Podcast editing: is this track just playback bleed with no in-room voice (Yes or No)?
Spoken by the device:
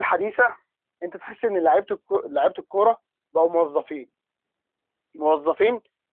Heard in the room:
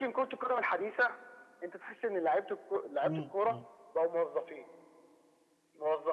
No